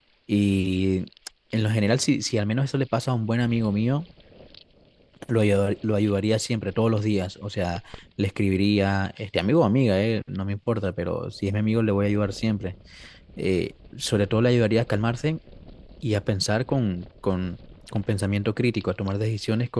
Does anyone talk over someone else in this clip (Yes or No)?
No